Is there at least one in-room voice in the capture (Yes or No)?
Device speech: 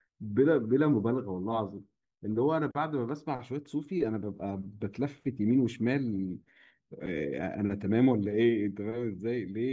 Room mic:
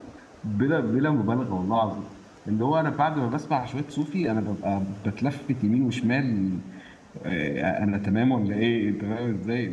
No